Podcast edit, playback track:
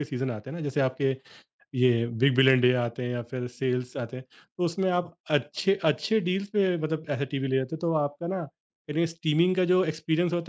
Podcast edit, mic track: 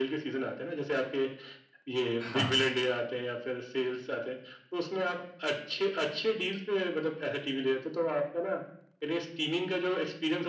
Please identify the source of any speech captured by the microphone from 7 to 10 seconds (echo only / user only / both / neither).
echo only